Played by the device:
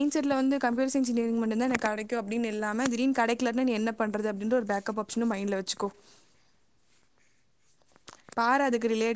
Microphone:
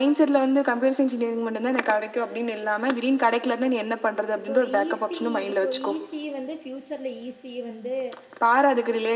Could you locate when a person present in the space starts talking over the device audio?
4.4 s

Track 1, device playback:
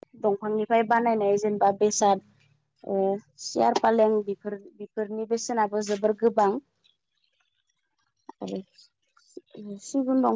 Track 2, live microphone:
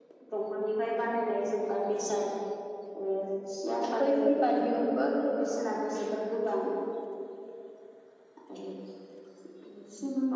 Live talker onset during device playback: 4.0 s

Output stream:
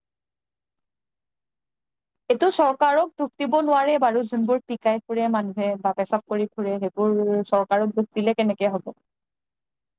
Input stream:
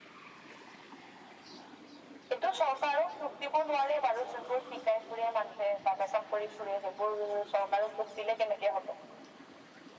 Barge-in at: none

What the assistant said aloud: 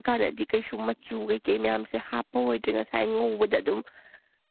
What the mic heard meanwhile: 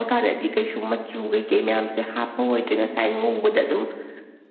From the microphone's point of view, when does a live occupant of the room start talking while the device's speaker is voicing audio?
none

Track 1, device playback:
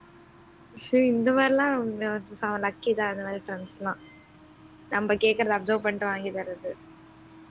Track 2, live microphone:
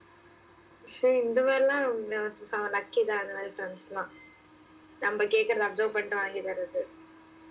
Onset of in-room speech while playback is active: none

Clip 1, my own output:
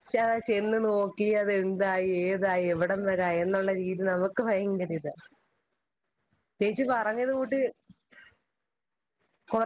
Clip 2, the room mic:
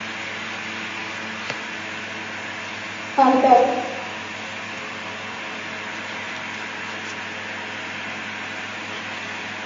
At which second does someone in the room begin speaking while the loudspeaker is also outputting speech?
3.2 s

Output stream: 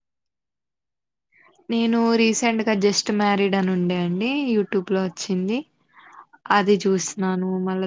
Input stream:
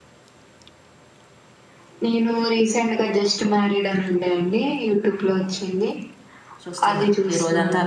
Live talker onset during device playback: 6.6 s

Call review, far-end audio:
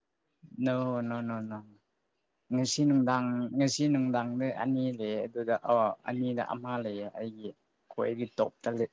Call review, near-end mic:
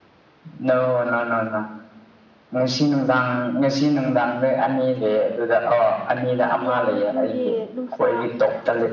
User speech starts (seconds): 6.5 s

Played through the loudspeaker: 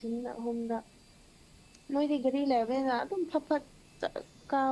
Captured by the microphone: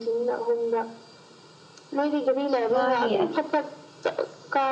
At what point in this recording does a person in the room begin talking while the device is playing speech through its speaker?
2.7 s

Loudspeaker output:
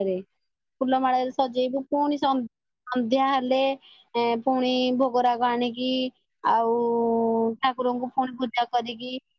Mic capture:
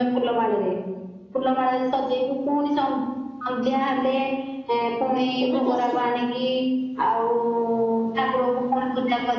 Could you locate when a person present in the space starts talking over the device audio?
5.5 s

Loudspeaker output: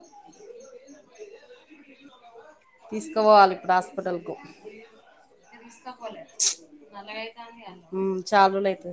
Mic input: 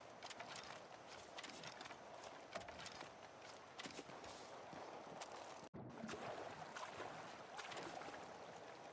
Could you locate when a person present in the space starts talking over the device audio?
none

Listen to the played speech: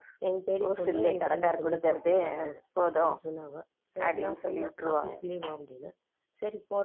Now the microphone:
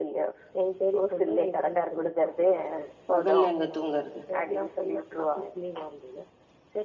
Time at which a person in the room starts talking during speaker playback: 3.1 s

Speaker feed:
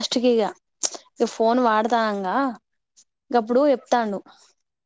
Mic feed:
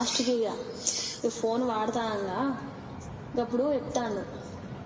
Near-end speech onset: none

